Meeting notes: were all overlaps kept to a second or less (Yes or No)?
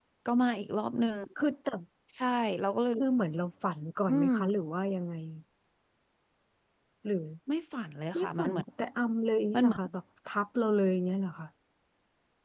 Yes